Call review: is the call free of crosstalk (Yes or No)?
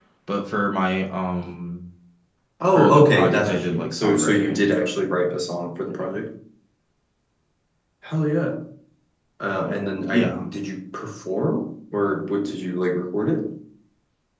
No